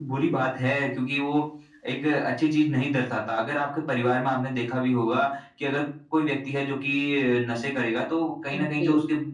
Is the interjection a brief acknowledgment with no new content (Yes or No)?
Yes